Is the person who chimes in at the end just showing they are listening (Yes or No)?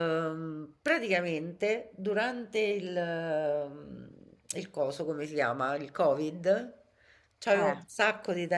Yes